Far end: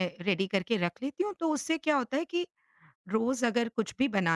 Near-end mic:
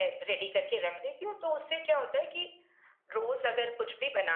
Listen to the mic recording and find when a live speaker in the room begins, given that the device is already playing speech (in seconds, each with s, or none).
none